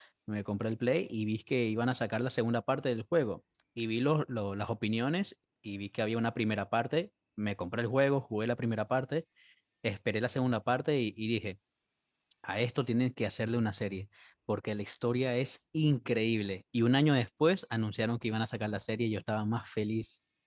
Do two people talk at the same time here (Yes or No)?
No